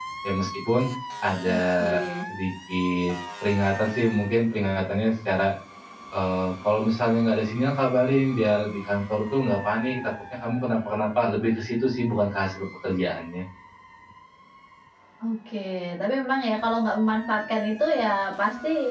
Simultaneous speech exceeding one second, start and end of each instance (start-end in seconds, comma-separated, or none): none